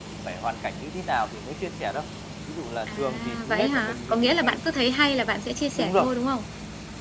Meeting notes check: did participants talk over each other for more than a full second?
Yes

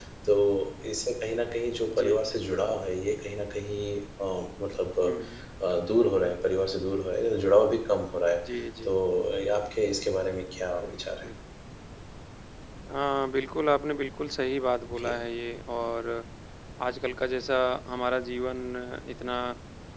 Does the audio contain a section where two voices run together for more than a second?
No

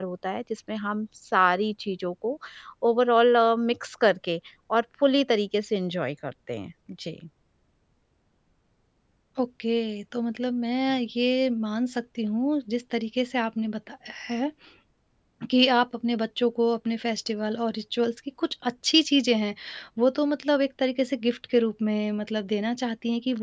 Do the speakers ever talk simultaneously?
No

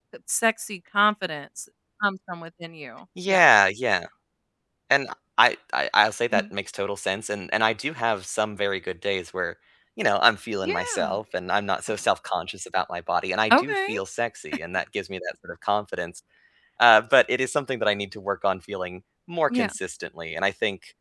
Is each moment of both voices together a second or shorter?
Yes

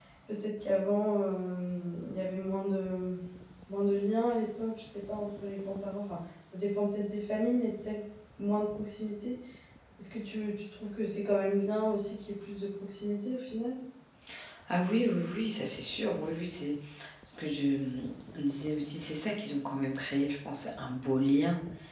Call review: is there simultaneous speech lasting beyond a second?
No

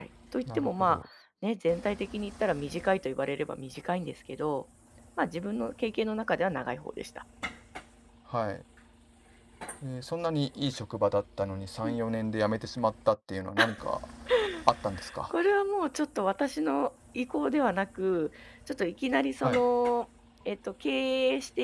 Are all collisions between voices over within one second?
Yes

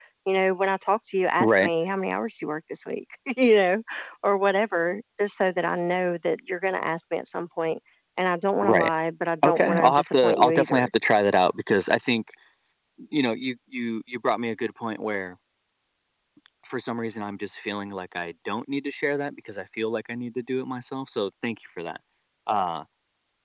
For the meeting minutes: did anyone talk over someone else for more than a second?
Yes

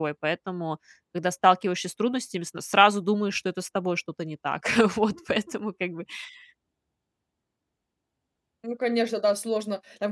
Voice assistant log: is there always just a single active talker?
Yes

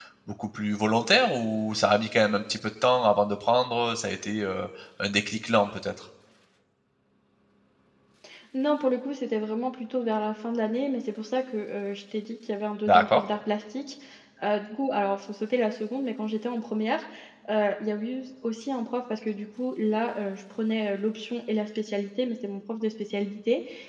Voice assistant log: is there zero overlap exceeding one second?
Yes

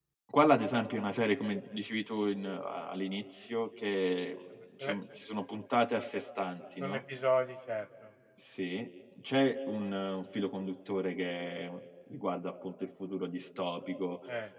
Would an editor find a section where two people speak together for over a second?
No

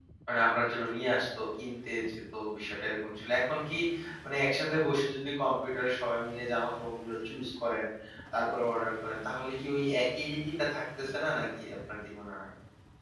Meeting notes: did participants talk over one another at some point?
No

